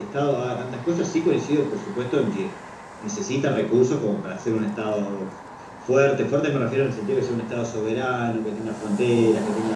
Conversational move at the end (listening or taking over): listening